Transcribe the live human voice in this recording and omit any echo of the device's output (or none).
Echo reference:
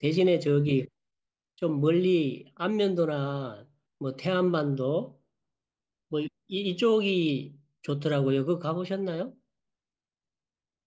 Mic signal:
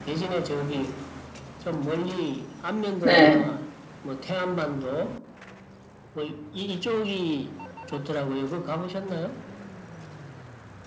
네.